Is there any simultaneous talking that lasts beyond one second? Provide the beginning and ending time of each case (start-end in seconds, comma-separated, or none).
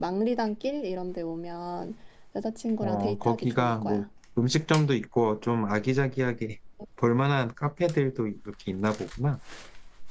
2.8-4.0